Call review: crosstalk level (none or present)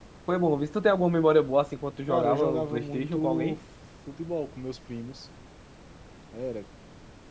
present